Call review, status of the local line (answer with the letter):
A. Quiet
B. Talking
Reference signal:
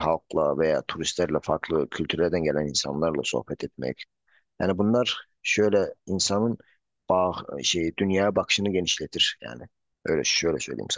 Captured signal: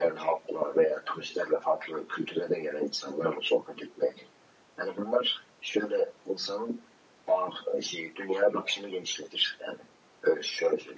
A